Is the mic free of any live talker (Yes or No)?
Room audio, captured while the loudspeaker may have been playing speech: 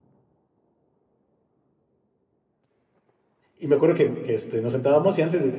No